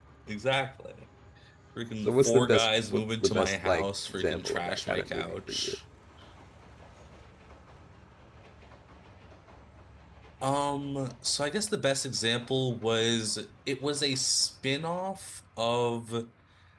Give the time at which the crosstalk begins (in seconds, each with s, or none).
2.0 s